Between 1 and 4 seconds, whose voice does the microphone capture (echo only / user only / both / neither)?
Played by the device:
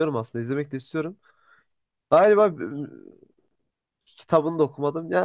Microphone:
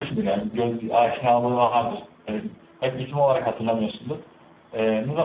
user only